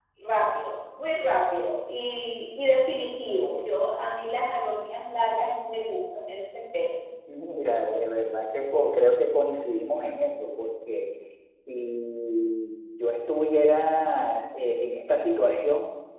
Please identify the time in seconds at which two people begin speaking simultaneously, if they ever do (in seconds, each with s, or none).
none